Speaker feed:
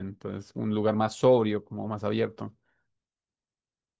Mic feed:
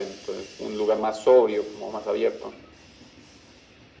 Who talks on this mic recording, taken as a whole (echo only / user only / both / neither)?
echo only